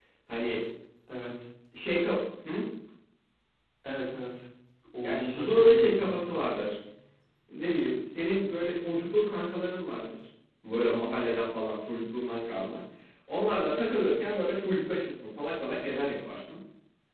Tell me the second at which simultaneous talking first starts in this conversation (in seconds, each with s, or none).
5.0 s